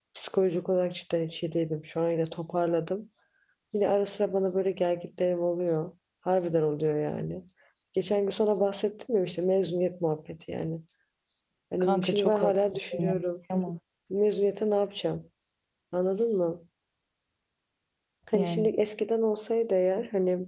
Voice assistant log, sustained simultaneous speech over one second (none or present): present